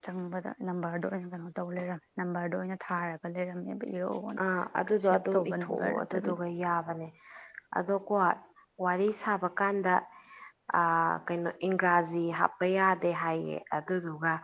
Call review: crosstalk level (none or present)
present